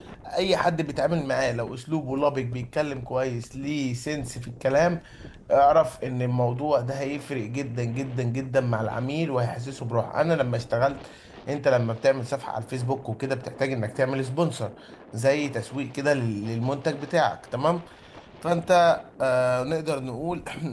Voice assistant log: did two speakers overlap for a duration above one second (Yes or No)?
No